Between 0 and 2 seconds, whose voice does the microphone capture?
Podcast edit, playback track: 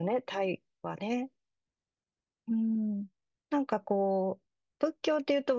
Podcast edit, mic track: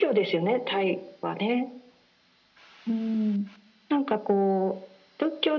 echo only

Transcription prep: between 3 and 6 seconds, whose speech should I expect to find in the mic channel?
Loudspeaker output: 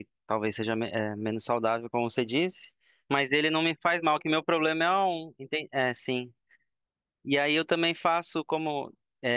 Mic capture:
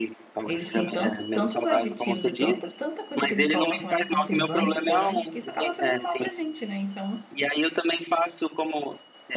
both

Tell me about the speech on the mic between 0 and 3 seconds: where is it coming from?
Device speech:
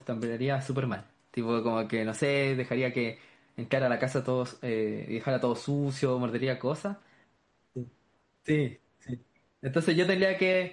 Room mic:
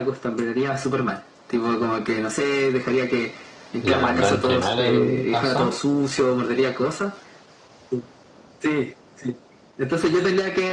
echo only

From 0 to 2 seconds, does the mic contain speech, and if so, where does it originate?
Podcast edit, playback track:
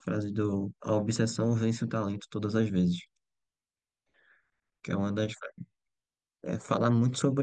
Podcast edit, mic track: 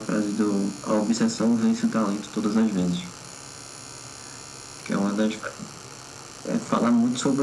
echo only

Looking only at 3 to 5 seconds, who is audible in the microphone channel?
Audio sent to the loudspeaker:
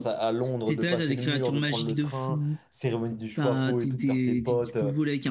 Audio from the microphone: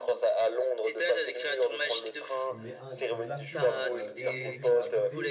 both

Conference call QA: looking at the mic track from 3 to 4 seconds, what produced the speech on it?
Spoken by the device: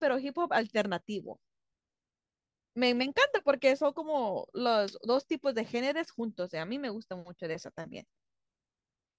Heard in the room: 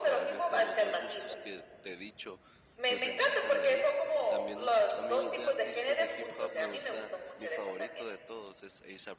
both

